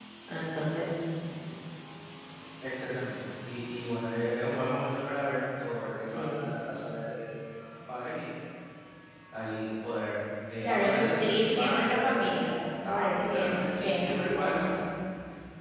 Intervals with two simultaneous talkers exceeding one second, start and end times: 10.6-12.4, 12.9-14.5

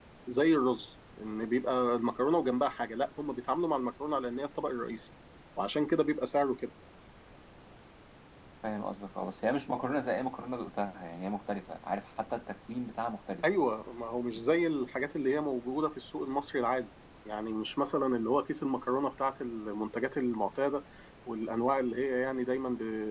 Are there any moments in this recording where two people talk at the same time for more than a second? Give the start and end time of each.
none

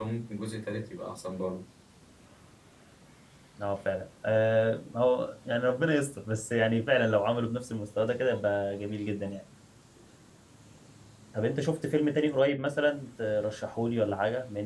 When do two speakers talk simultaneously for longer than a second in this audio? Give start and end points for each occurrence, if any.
none

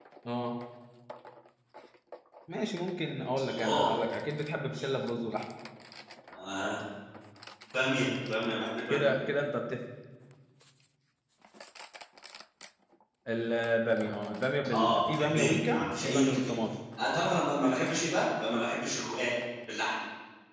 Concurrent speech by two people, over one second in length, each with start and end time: 14.7-16.5

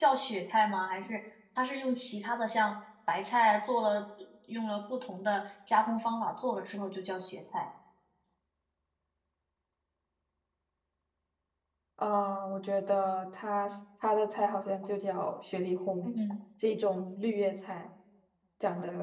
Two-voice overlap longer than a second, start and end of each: none

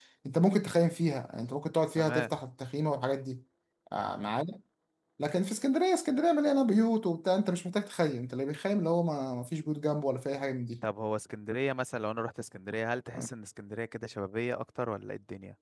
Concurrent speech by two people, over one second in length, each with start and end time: none

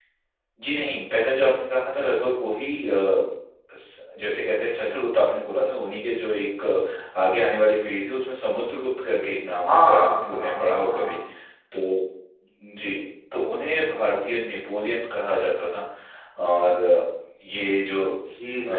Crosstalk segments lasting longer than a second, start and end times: 9.6-11.2

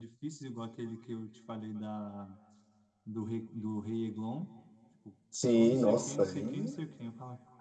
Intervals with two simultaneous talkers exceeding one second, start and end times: 5.4-6.8

